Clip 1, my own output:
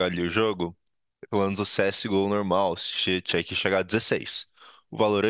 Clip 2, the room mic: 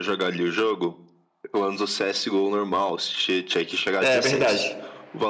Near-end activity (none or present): present